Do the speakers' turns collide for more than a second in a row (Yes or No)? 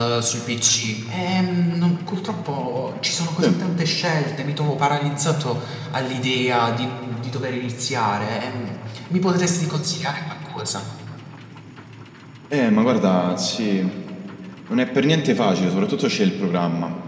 No